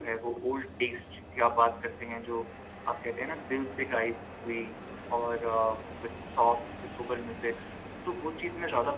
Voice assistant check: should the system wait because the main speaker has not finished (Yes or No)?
No